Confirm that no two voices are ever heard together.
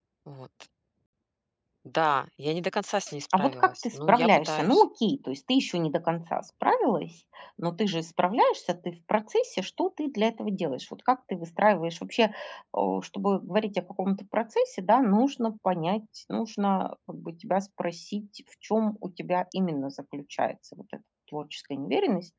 No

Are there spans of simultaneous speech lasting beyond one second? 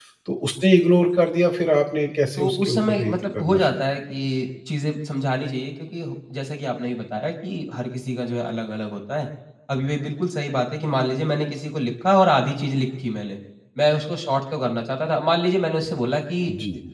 Yes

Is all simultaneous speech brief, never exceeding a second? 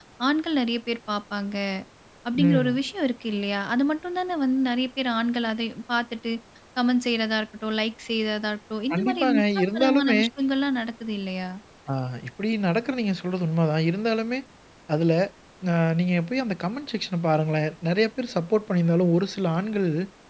No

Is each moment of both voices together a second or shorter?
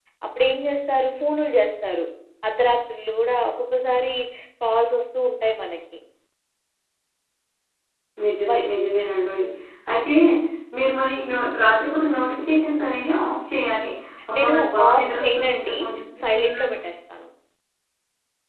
No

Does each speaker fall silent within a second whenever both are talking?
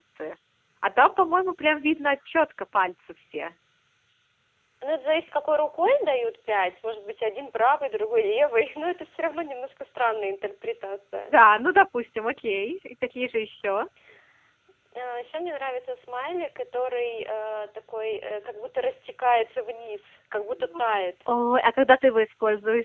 Yes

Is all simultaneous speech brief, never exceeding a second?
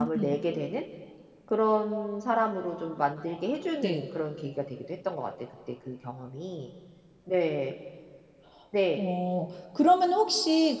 Yes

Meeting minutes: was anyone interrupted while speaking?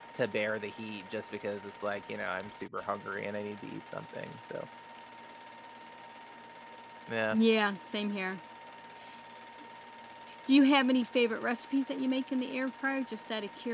No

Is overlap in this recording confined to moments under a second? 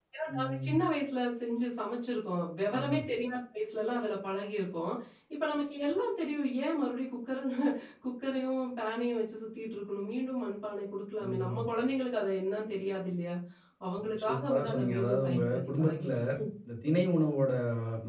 No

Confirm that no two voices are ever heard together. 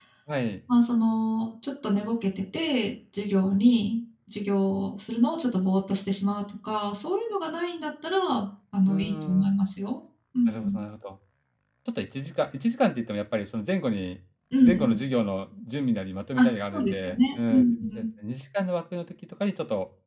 No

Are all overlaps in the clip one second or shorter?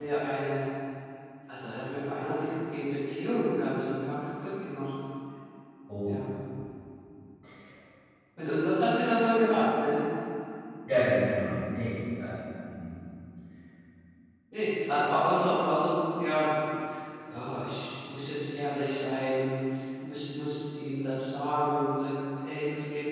Yes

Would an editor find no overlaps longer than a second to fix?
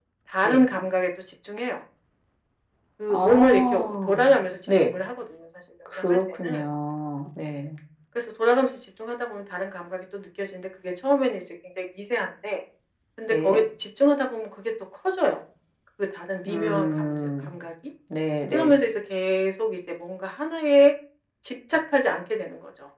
No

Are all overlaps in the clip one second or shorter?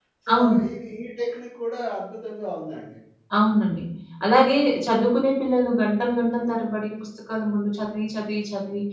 Yes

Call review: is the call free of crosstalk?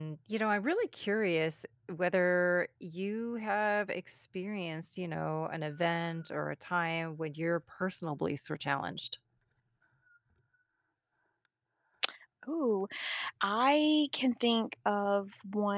Yes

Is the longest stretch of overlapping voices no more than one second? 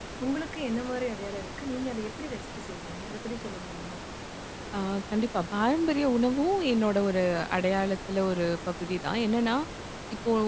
Yes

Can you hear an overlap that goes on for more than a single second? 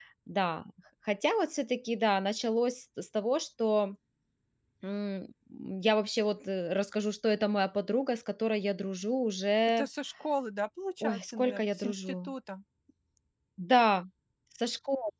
Yes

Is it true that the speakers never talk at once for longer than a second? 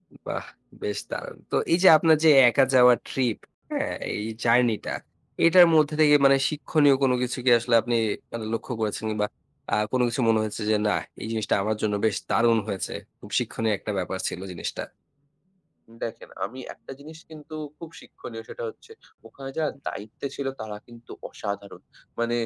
Yes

